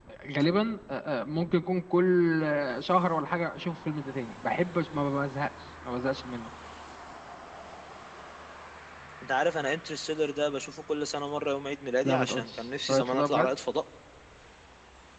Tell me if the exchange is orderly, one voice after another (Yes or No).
No